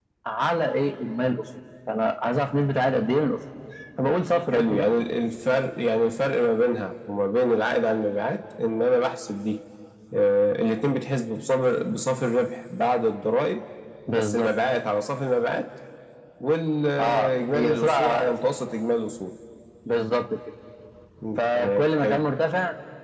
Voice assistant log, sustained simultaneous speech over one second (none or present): present